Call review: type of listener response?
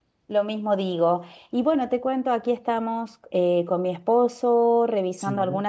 listening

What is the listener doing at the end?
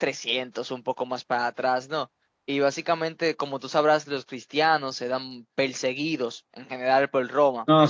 taking over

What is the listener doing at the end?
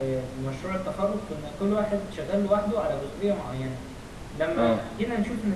listening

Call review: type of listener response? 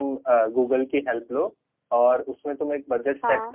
listening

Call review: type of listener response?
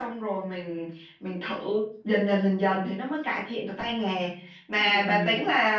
listening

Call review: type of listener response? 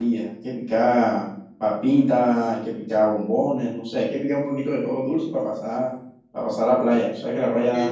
taking over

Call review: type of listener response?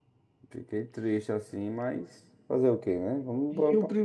taking over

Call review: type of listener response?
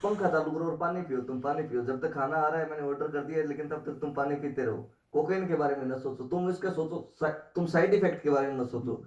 taking over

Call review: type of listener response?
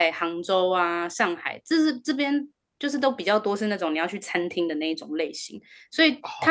listening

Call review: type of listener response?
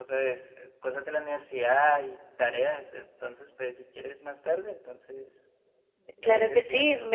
taking over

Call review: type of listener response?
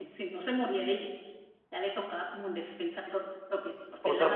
taking over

